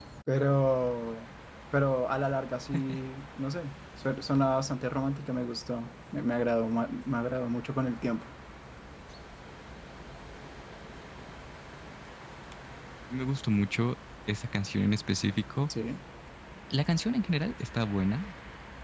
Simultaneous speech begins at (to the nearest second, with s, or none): none